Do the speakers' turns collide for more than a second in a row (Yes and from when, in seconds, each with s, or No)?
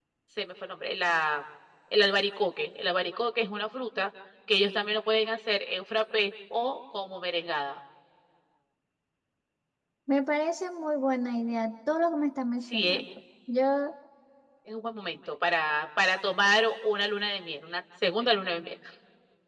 No